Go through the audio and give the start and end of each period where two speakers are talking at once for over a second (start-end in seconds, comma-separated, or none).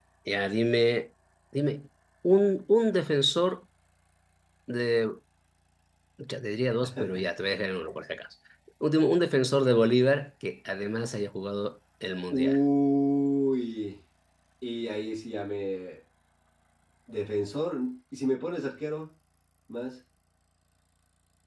none